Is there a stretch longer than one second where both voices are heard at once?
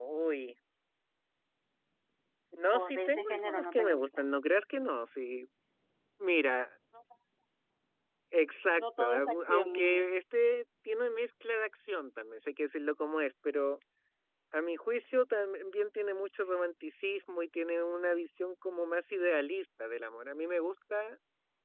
Yes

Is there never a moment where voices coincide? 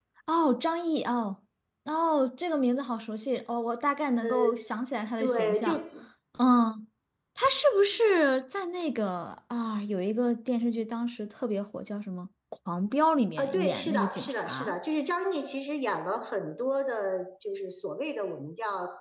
No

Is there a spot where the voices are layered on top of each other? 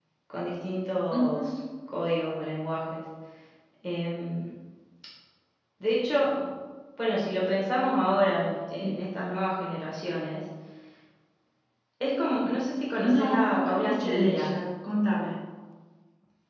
Yes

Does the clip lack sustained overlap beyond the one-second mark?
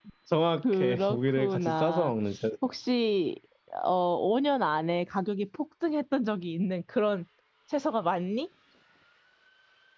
No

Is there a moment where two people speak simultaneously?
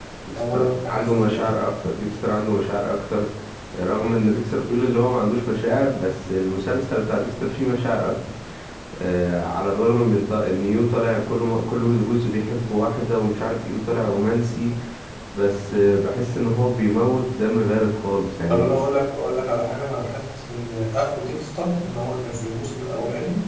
Yes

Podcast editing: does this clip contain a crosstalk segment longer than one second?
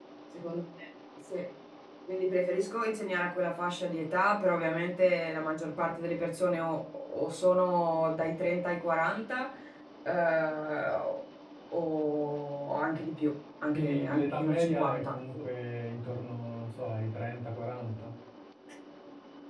Yes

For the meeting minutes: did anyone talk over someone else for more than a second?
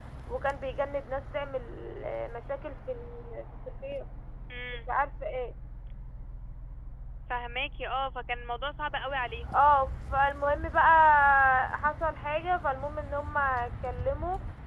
No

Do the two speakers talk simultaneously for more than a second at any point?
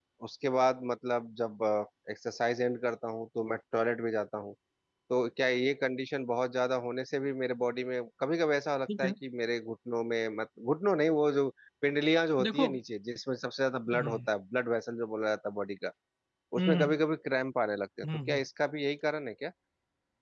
No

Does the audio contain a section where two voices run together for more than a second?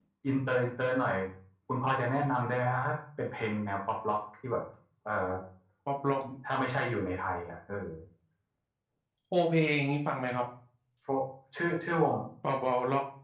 No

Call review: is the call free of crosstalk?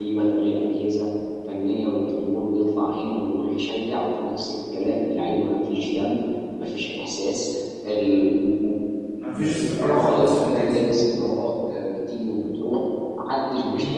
No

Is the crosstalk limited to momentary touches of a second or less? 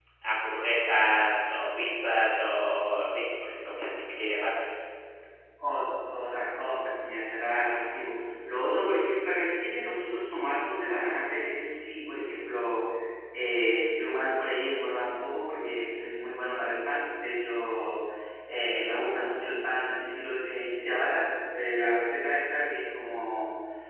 Yes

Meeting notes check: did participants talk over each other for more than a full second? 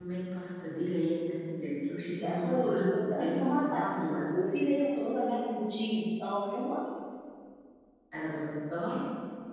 Yes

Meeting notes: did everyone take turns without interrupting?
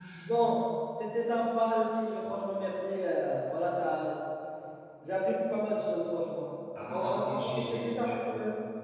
No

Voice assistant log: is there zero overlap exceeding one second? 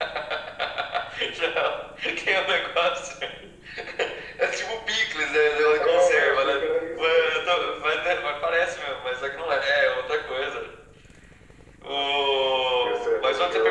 No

